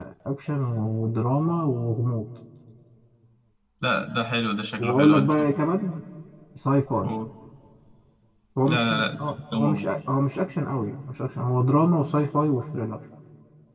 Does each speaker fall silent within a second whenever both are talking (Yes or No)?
No